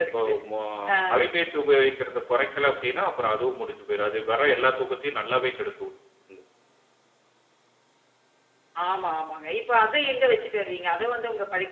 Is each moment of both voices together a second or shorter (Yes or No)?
Yes